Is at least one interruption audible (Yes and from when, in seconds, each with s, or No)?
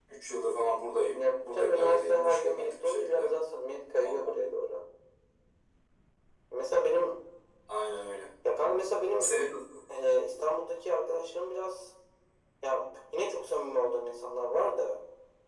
Yes, from 1.1 s